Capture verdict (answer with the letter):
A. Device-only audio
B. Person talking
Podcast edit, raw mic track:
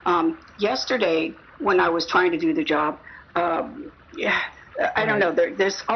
B